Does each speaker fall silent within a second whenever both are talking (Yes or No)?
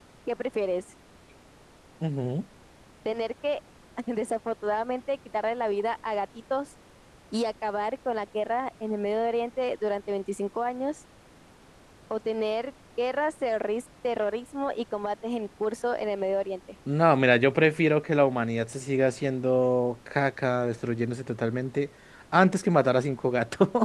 Yes